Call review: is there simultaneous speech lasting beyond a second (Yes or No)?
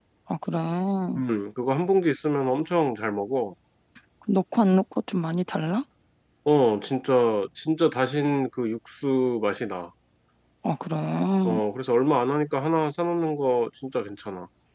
No